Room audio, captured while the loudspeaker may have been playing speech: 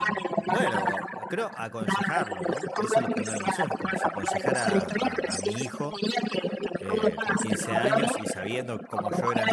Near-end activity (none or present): present